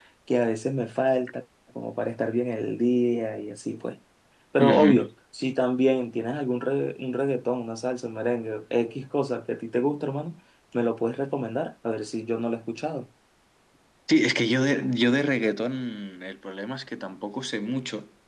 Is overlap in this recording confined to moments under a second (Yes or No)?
Yes